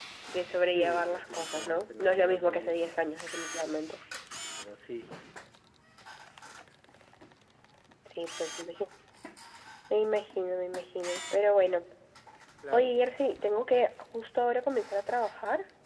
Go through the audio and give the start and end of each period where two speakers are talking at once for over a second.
0.7-2.9

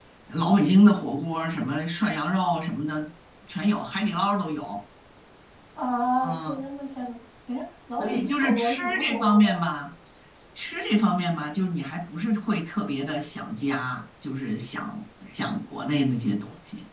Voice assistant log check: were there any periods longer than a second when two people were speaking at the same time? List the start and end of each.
8.0-9.5

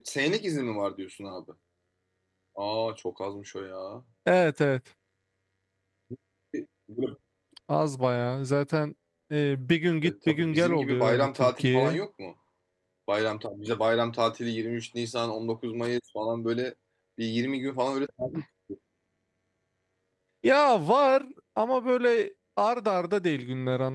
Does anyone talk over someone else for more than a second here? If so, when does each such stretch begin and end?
10.0-12.0

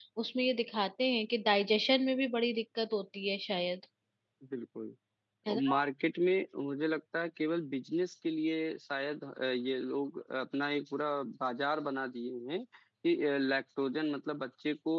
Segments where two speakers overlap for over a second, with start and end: none

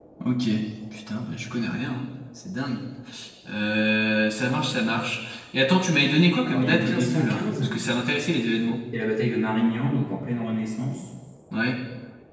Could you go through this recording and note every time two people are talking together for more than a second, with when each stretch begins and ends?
6.4-7.6

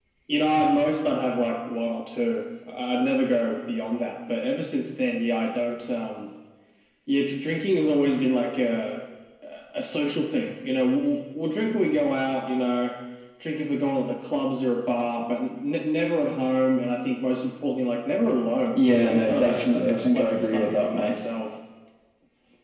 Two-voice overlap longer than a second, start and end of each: 18.8-21.1

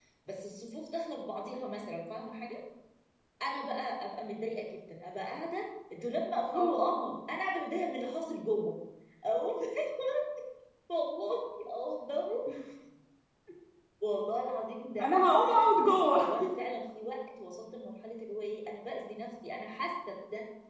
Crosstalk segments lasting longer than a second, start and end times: 15.0-16.2

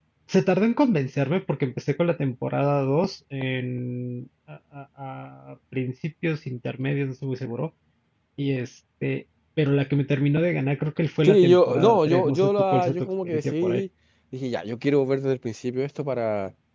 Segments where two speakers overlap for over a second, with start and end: 11.2-13.8

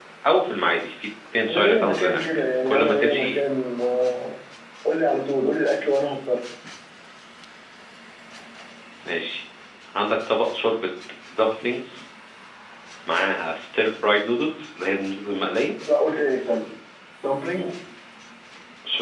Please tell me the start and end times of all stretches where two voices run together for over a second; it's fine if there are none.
1.5-3.4

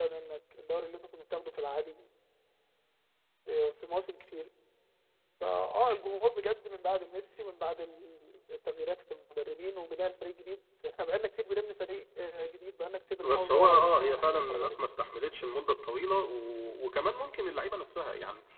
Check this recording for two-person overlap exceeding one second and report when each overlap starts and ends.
13.3-14.8

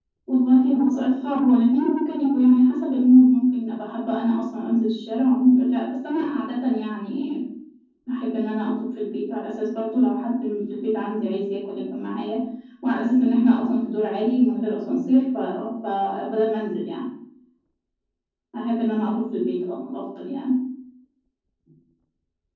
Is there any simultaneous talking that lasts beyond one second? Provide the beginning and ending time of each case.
none

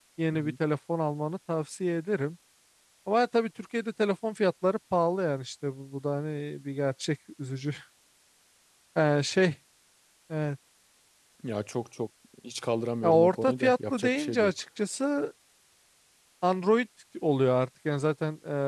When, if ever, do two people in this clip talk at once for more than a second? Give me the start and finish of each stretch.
13.0-14.5

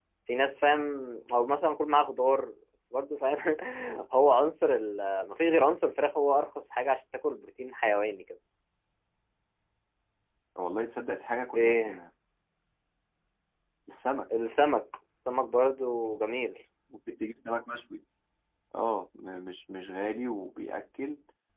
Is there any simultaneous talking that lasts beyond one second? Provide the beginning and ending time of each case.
none

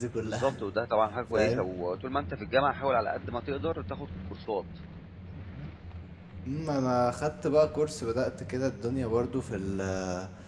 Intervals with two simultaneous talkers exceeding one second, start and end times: none

